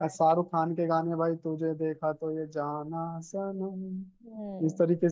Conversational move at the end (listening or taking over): taking over